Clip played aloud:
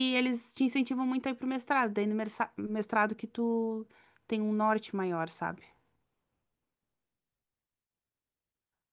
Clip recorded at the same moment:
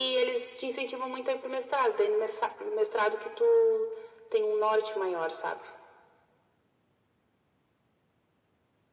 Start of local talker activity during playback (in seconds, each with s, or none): none